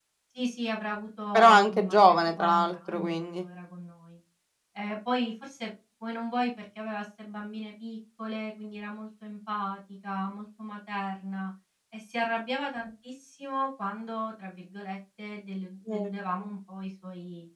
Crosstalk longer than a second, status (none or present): present